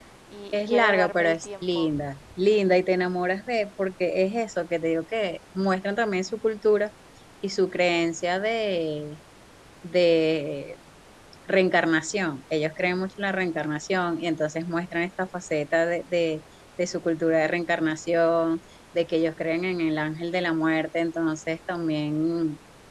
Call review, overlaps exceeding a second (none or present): present